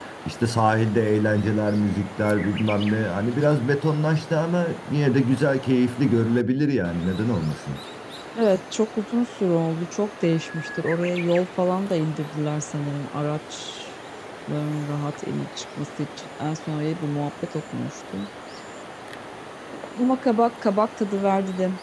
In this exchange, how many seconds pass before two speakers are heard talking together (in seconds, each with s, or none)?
none